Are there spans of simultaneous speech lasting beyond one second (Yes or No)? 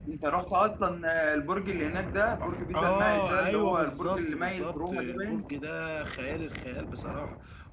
Yes